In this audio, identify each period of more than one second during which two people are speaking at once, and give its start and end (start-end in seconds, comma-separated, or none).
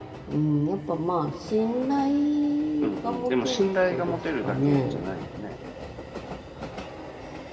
2.8-5.0